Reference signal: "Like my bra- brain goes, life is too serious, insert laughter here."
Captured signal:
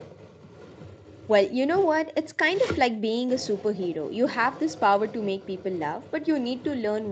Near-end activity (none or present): present